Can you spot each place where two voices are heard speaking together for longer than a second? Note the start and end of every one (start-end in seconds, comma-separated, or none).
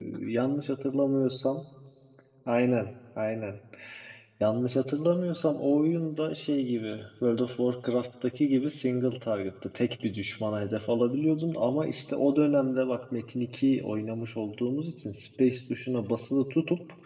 none